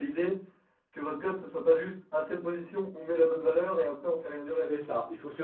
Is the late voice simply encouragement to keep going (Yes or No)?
No